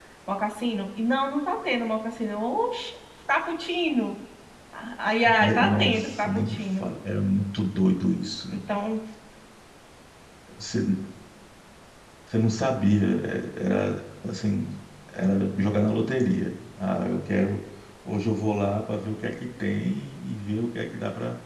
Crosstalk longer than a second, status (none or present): present